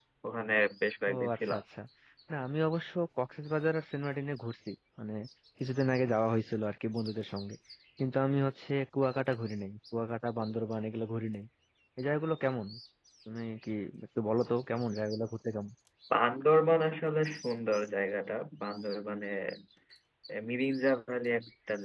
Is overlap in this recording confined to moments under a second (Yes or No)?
Yes